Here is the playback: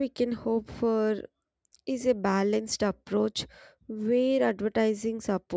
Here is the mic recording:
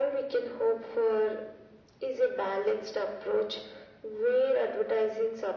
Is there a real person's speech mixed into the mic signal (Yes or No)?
No